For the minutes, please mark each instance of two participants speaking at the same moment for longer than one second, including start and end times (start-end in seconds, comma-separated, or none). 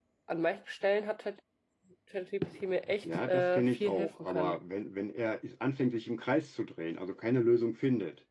3.0-4.6